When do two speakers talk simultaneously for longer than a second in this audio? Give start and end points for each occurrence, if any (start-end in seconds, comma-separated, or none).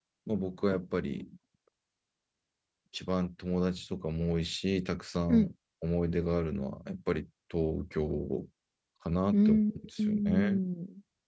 9.3-10.6